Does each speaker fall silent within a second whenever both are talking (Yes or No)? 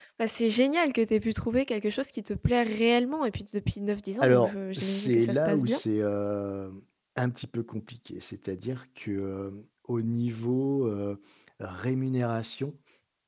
No